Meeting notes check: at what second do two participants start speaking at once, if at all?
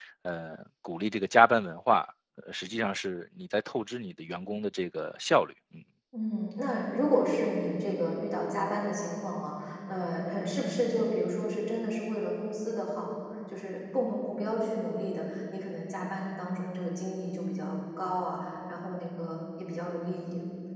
none

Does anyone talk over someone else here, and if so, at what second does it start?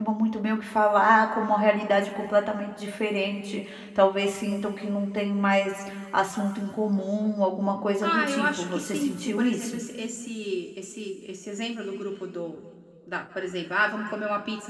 8.0 s

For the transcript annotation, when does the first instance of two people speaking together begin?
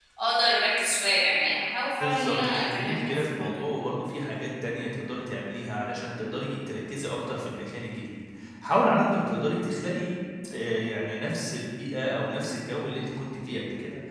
2.0 s

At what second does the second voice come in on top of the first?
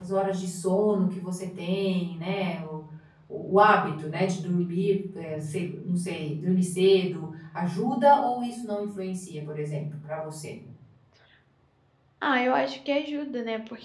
none

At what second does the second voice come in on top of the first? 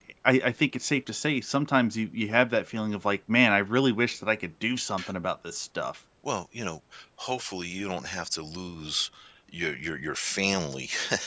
none

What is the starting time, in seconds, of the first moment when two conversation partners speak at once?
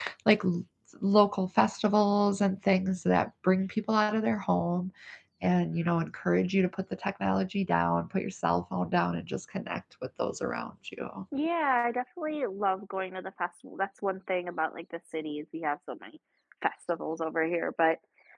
none

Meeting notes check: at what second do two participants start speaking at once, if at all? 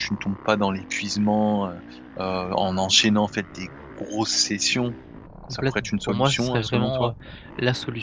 5.5 s

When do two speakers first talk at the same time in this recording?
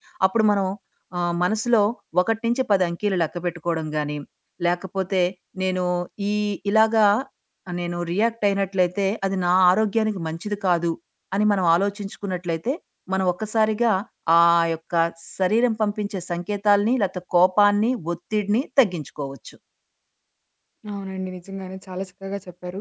none

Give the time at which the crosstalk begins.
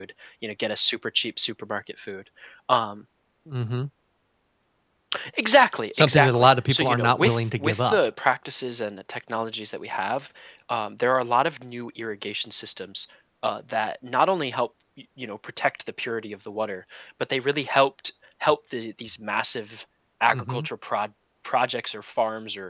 5.9 s

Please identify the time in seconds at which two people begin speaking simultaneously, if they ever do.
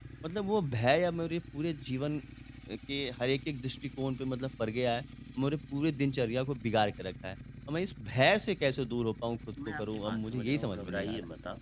9.6 s

